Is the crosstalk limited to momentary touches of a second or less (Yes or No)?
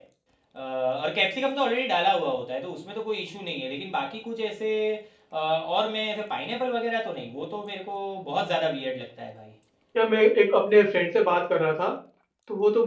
Yes